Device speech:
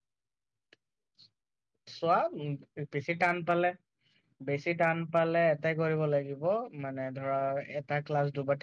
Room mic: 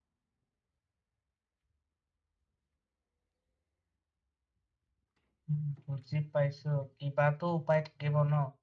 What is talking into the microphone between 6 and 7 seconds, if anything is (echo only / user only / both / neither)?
user only